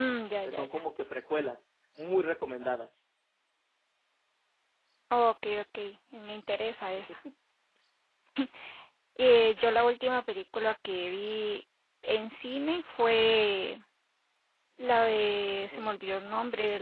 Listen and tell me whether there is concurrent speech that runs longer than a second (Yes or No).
No